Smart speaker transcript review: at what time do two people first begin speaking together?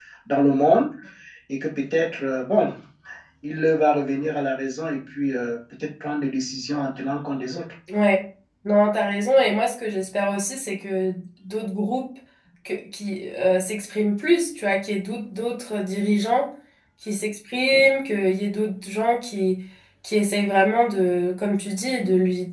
none

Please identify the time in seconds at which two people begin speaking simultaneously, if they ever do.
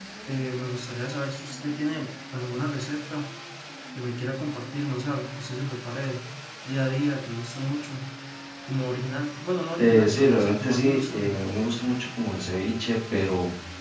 10 s

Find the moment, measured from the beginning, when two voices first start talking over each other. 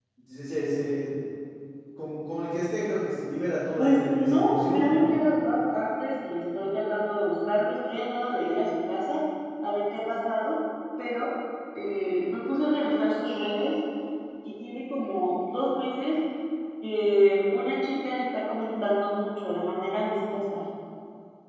4 s

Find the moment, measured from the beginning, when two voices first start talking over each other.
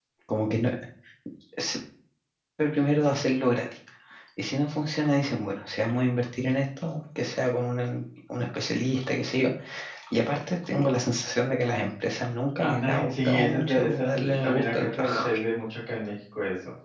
13 s

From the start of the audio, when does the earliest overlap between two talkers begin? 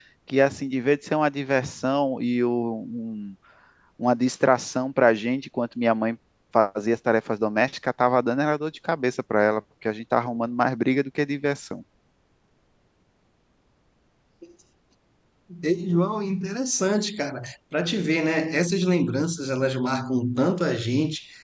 none

